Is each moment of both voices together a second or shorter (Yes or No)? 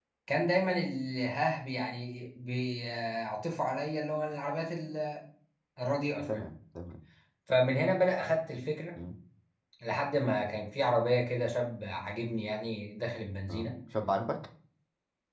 Yes